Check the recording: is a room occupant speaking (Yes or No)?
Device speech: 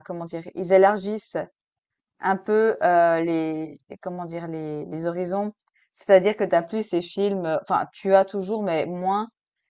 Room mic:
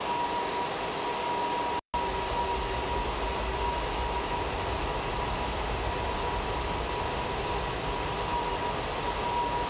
No